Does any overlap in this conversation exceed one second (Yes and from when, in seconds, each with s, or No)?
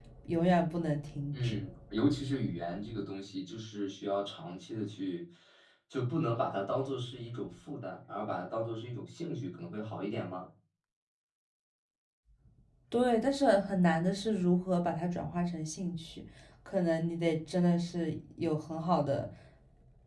No